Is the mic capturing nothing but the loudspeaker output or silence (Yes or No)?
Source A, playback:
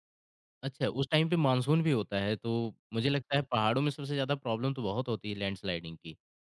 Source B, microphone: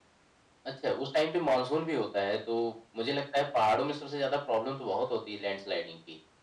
Yes